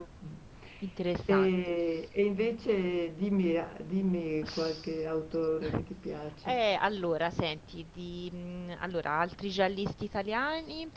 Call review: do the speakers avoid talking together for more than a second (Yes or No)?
Yes